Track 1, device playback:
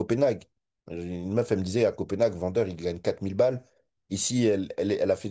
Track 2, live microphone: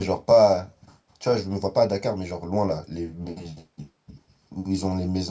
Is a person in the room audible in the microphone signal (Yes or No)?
Yes